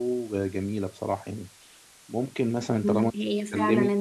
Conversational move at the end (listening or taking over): taking over